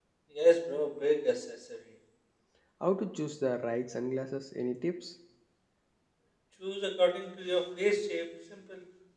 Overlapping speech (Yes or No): No